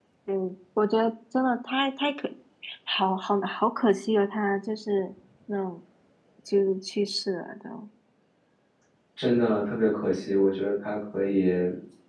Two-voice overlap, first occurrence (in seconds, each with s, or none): none